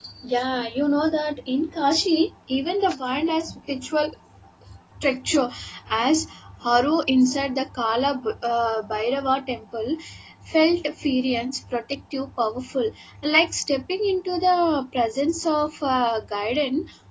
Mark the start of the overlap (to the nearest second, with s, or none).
none